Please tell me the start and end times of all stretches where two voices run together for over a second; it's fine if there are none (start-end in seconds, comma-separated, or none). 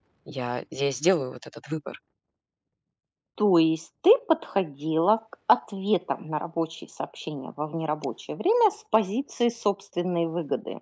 none